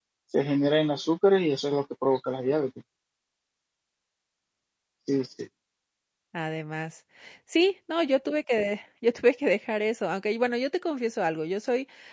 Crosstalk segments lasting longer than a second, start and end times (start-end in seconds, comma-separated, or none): none